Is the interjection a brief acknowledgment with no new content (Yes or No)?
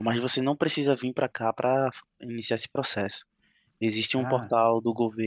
Yes